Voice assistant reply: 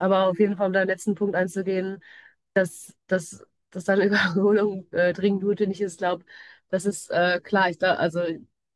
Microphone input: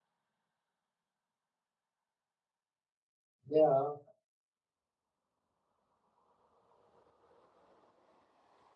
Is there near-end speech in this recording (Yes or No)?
Yes